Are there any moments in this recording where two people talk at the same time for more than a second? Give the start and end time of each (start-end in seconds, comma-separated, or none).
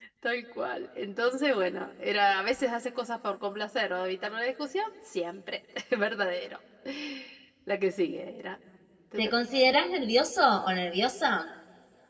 none